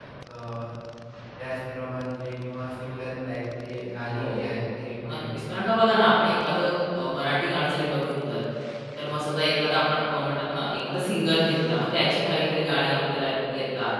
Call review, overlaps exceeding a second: none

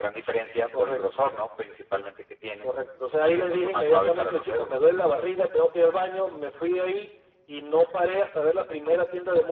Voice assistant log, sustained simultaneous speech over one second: present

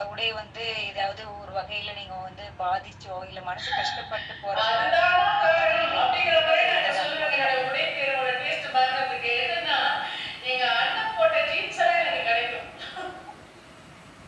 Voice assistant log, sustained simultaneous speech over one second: present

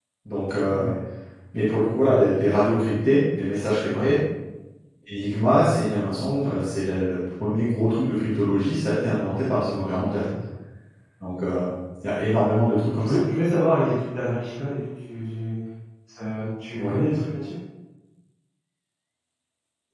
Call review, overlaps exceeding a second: none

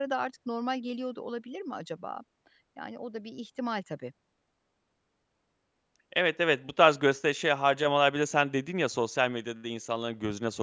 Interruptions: none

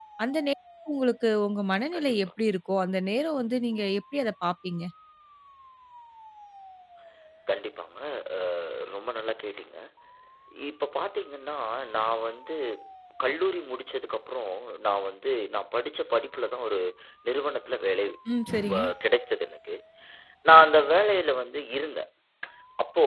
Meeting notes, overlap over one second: none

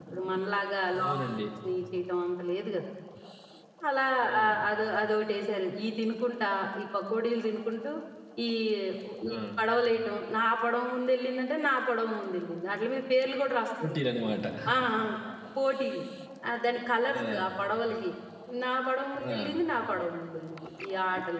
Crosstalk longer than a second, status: none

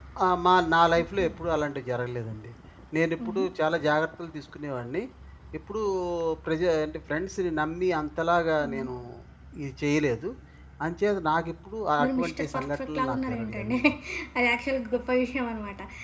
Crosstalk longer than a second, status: present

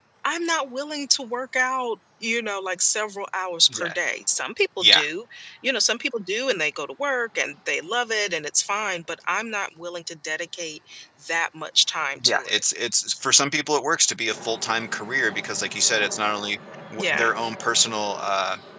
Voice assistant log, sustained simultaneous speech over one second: none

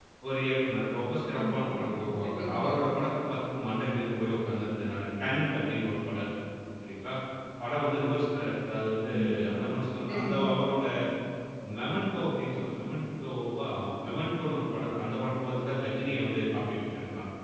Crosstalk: present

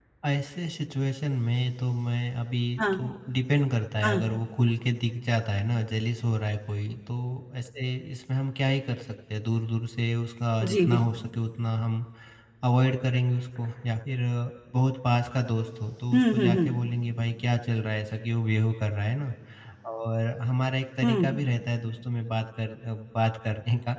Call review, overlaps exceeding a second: none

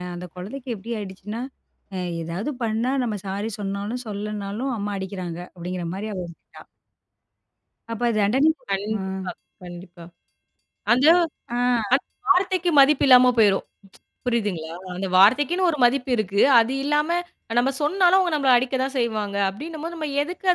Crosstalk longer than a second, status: none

